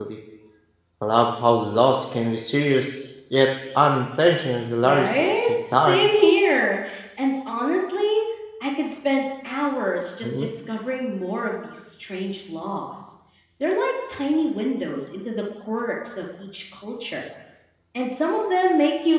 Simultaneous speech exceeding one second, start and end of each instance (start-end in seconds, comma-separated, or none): 4.8-6.0